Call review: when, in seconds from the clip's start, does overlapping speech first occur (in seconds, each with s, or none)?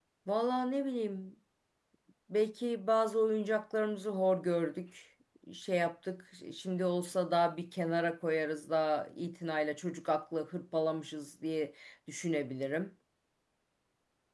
none